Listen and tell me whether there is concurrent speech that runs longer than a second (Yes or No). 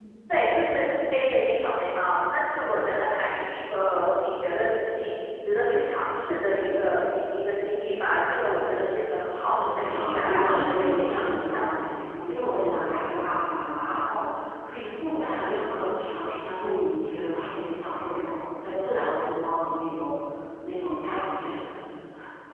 Yes